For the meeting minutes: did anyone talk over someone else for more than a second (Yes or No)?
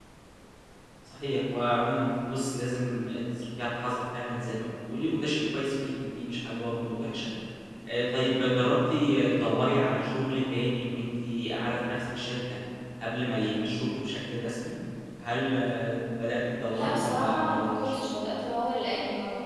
Yes